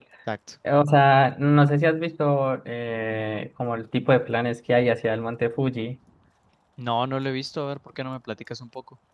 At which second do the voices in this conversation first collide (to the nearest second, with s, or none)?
none